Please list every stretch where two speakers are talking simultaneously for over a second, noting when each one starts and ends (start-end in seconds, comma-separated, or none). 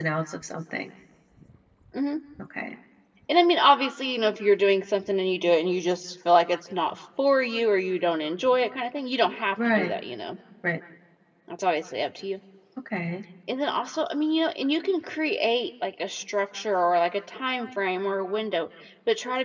none